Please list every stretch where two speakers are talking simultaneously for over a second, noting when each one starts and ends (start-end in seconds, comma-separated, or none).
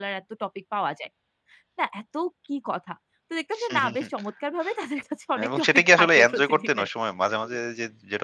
5.5-6.9